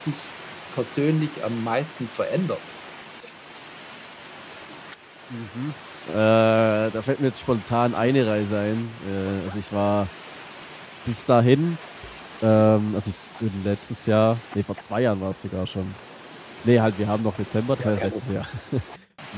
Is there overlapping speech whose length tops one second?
No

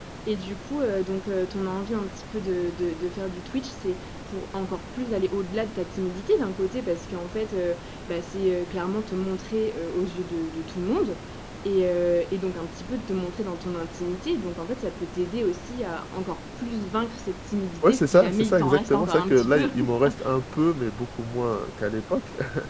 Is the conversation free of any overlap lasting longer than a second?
No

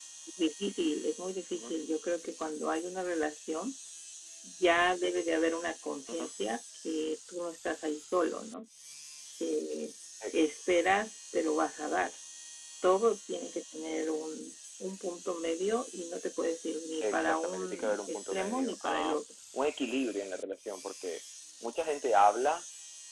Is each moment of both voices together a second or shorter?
No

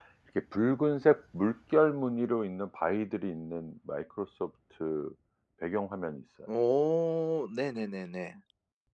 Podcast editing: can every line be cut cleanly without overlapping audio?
Yes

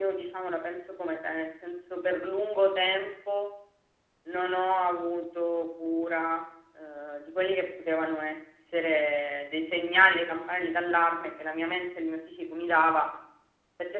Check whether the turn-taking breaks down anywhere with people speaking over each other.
No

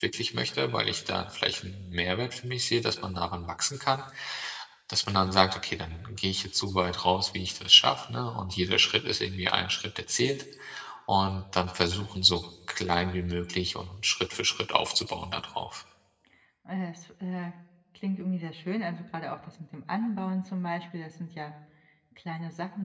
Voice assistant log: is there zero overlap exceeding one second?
Yes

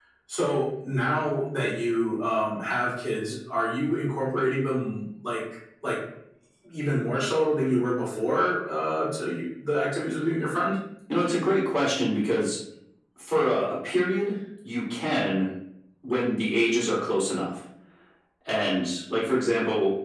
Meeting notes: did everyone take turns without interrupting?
Yes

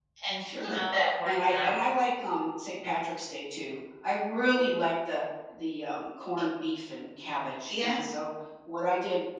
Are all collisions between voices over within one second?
Yes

